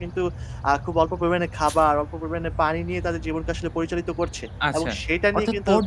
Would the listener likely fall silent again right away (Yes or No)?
No